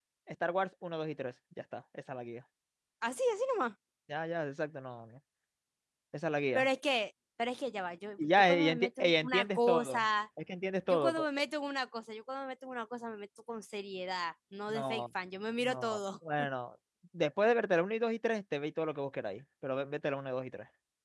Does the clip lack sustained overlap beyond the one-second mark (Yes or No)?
No